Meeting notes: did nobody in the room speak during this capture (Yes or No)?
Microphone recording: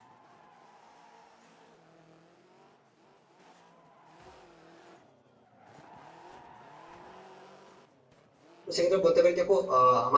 No